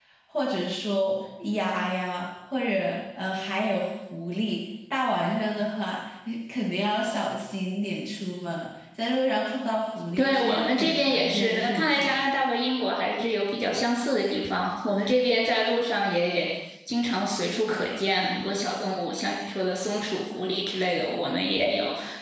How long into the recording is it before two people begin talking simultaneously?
10.2 s

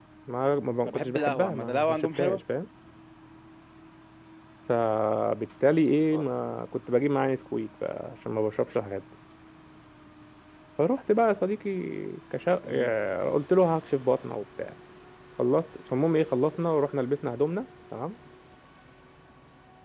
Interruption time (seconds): 0.9 s

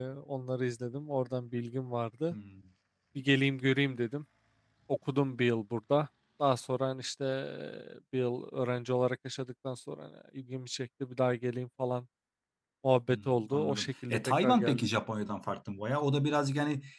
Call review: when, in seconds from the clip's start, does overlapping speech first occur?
13.1 s

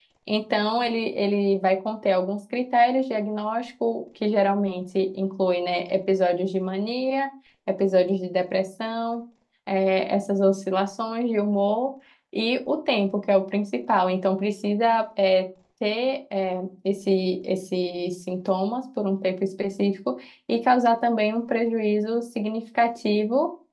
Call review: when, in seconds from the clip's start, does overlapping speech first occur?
none

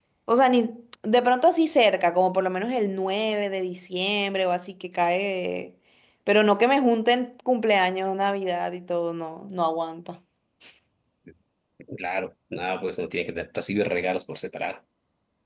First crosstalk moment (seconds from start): none

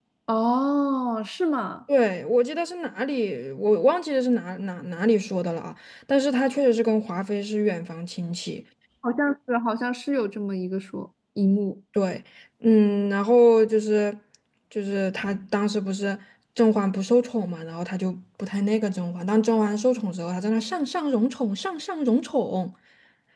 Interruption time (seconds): none

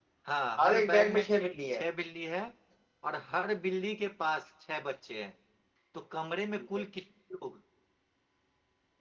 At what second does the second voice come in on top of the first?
0.6 s

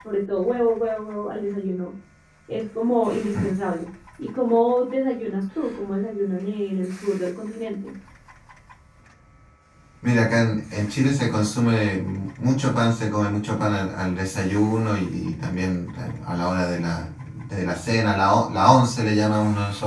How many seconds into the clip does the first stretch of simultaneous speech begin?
none

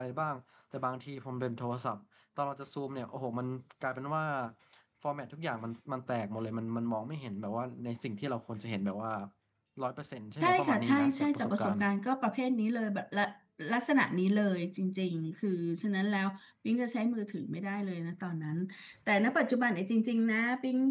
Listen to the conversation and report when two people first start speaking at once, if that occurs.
10.4 s

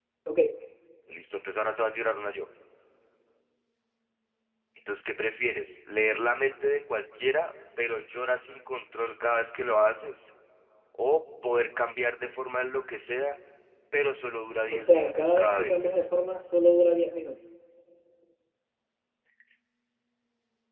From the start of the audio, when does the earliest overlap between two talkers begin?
14.7 s

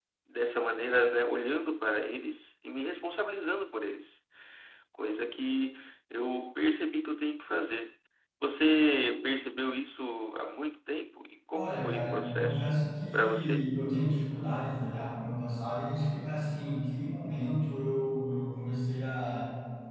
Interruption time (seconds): 11.5 s

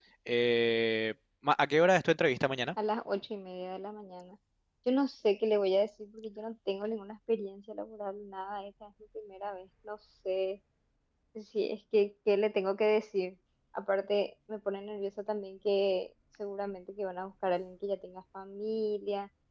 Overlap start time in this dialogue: none

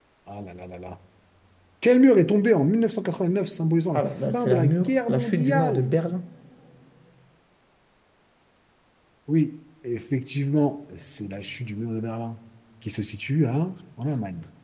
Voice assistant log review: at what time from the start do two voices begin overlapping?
3.9 s

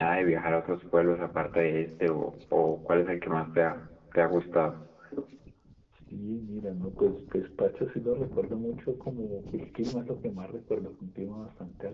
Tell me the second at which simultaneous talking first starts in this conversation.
none

